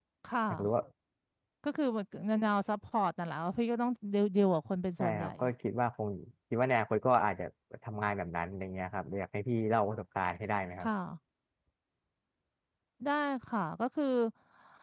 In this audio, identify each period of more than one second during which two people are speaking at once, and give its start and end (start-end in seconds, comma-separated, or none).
none